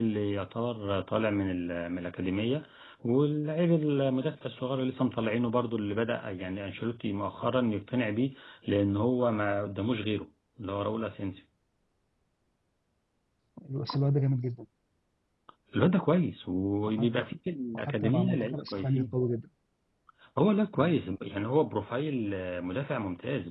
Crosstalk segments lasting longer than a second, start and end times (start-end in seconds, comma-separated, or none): 17.9-19.1